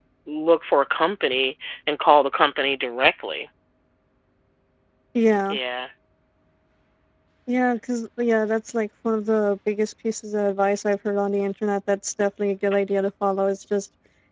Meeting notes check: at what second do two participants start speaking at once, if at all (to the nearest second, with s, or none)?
none